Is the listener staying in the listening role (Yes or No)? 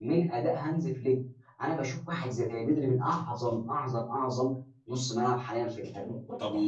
Yes